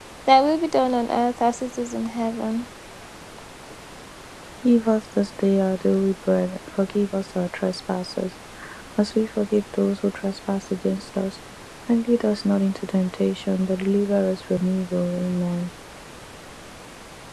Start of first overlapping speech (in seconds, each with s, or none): none